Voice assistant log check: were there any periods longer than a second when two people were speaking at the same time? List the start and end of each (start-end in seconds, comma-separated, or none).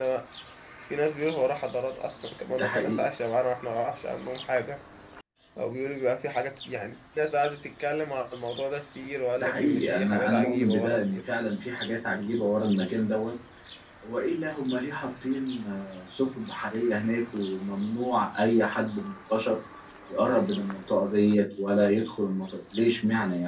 9.4-11.0